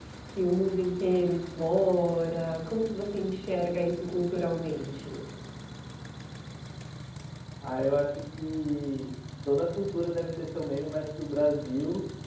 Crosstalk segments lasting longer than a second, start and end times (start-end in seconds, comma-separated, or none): none